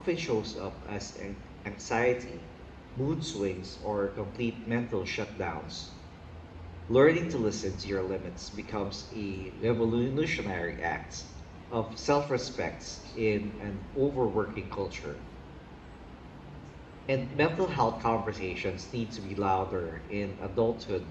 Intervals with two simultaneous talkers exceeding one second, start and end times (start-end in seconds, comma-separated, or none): none